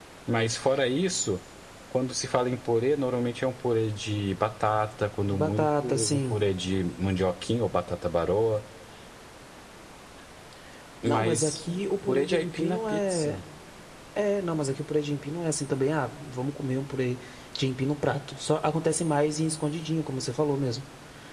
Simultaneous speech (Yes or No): Yes